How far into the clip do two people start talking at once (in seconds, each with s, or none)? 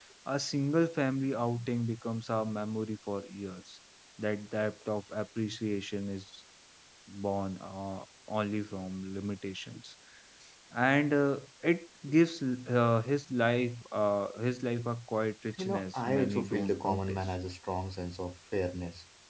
15.5 s